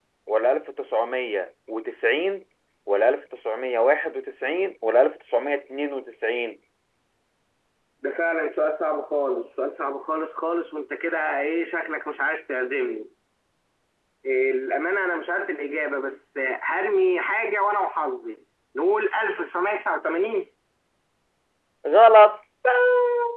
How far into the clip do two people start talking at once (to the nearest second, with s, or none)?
none